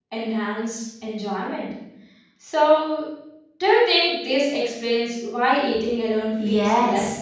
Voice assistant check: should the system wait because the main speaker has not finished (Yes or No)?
No